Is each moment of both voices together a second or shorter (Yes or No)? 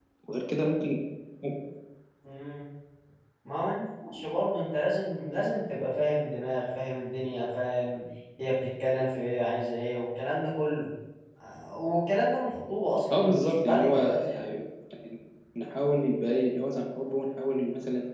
No